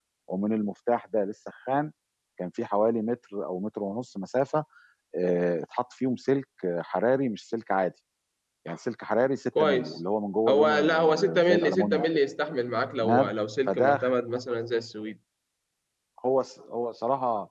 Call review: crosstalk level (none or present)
present